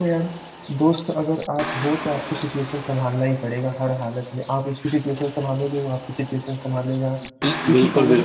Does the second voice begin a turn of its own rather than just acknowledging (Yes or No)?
Yes